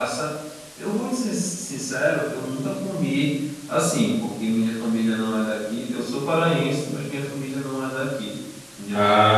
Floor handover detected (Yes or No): No